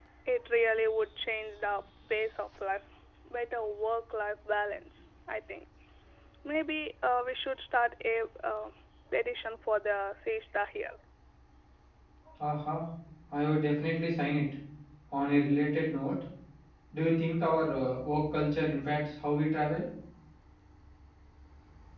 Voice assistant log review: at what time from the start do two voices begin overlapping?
none

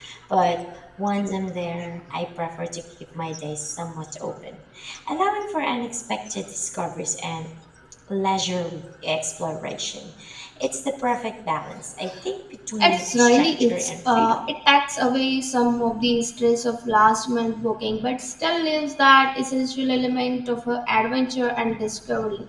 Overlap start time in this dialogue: 12.8 s

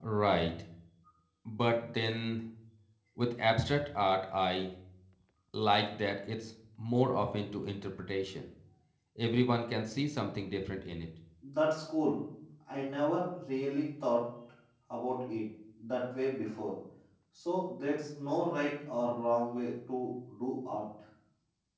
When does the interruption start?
none

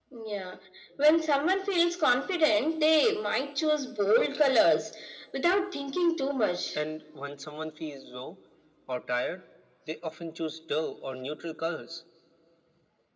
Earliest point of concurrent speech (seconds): none

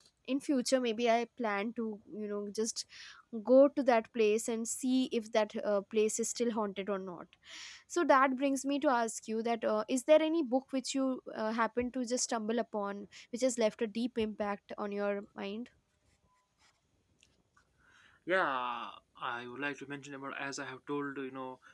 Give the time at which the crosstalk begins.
none

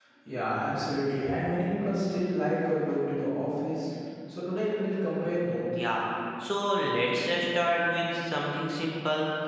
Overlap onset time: none

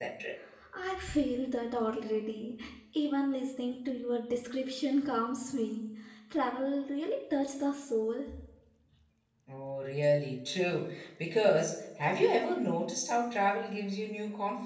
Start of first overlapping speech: none

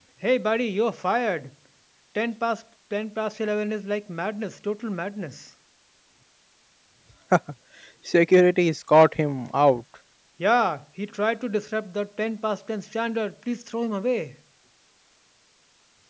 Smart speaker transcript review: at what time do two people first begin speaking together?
none

